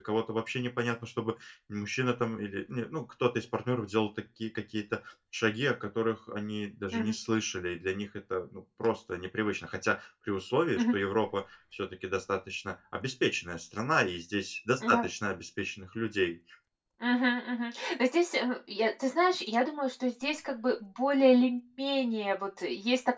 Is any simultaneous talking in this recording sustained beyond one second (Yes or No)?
No